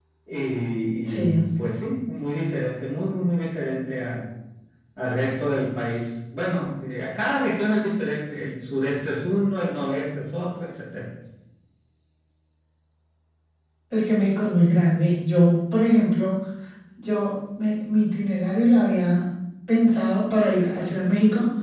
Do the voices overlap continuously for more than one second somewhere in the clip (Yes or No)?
No